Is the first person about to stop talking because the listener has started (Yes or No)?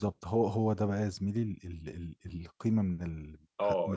Yes